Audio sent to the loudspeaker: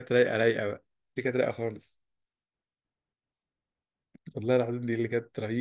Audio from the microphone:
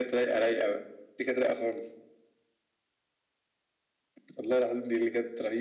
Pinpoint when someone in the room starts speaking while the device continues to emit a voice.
none

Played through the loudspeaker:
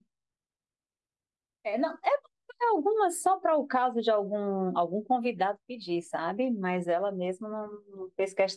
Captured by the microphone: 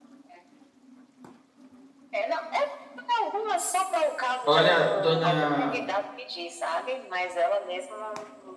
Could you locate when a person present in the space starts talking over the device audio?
4.4 s

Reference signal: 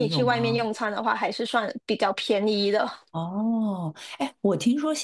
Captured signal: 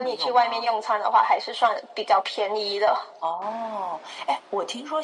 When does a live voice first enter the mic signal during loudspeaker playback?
none

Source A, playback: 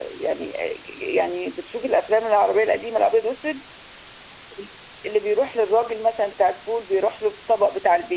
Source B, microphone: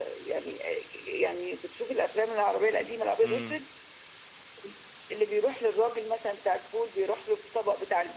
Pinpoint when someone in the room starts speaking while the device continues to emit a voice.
3.2 s

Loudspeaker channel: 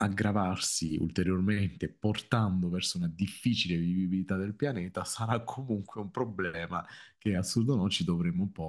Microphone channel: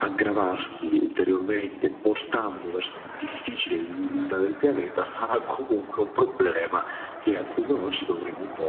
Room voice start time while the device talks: none

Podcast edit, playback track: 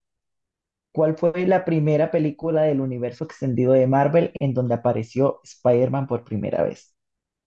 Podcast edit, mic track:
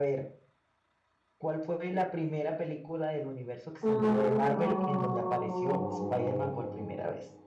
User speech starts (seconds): 3.8 s

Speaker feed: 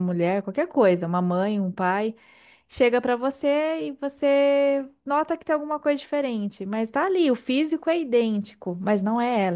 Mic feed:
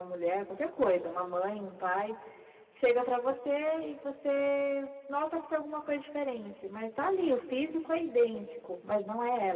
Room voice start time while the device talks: none

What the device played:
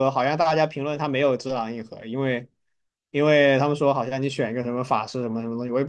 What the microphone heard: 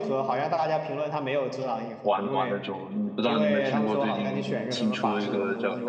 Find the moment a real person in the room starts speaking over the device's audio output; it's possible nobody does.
2.0 s

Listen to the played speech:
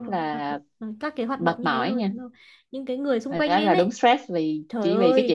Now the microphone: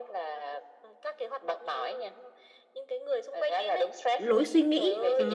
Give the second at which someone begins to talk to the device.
4.2 s

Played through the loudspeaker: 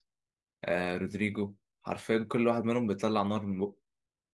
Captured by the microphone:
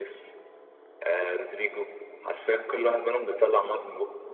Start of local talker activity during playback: none

